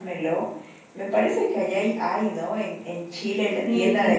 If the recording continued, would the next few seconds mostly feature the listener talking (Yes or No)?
Yes